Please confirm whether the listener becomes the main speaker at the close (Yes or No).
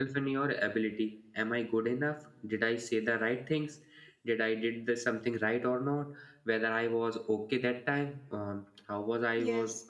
No